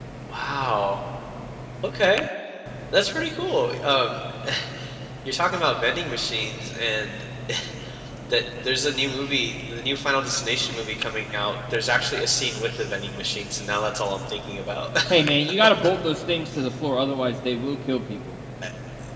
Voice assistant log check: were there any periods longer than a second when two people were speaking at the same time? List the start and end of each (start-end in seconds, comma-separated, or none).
none